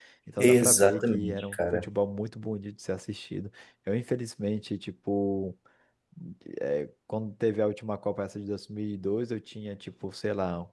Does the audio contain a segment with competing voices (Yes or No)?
Yes